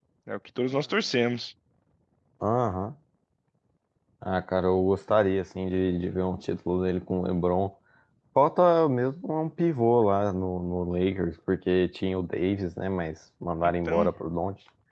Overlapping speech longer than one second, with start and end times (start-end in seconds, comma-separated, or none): none